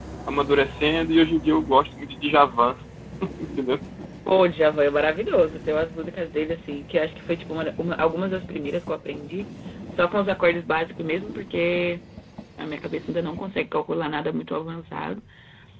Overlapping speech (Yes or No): No